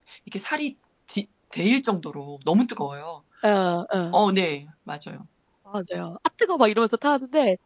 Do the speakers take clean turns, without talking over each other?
Yes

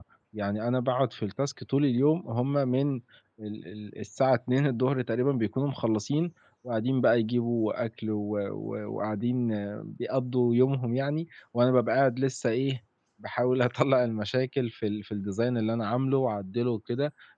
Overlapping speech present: No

